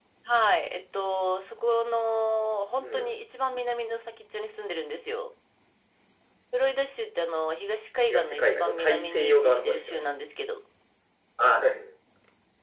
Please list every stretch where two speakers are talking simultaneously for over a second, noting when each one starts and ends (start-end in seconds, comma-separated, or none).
8.1-10.0